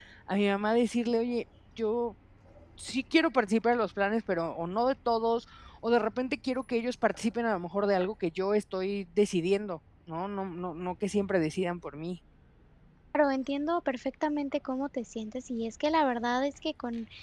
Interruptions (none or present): none